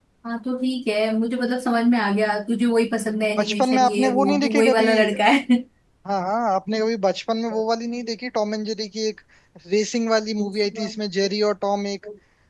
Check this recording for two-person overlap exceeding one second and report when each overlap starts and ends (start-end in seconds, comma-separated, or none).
3.4-4.9